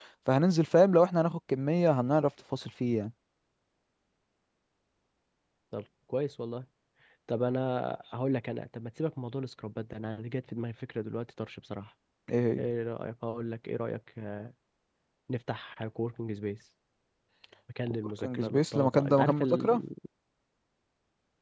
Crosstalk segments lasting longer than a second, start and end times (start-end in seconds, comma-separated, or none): 17.9-19.8